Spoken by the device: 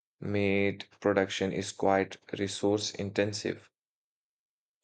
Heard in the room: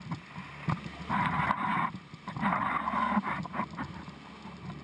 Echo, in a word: none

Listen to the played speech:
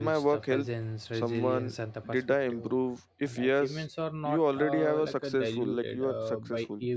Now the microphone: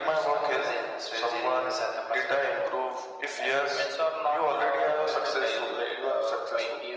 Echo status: present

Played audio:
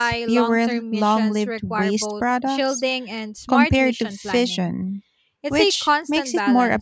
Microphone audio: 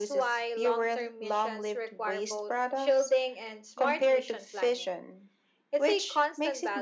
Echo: present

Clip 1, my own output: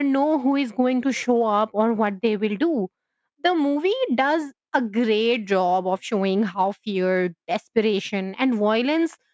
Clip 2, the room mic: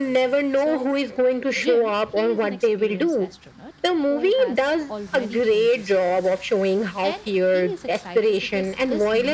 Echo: present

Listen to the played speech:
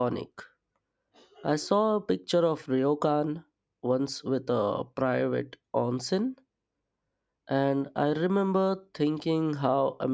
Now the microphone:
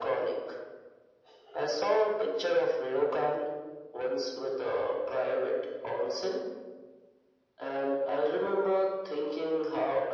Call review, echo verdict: present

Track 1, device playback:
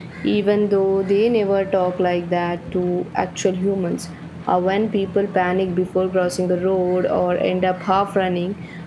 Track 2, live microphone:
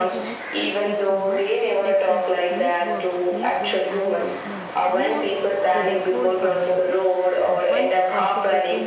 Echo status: present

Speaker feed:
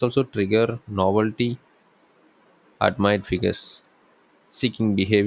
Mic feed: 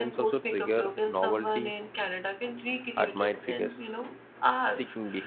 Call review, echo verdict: present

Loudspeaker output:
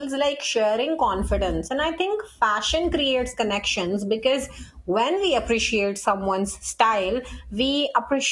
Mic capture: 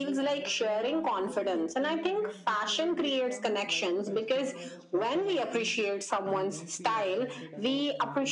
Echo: present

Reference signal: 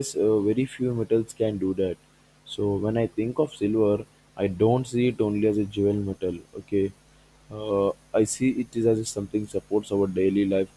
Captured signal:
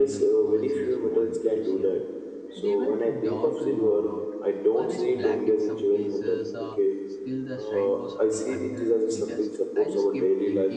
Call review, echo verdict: present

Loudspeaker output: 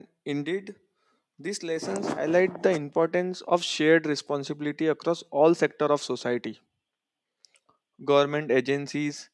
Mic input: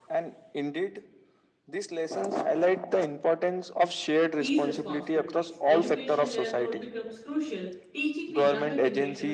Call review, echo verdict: present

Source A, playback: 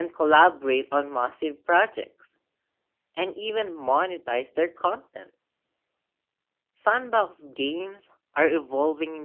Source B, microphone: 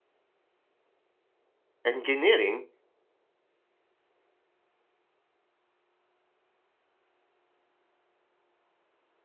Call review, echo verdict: none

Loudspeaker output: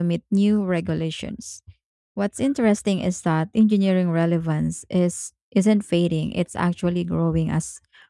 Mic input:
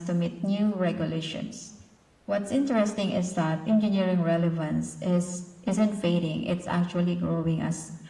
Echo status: present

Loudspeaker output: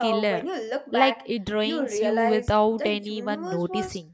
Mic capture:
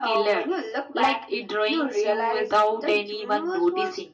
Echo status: present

